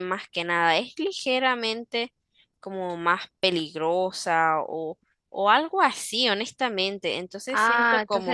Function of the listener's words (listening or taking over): taking over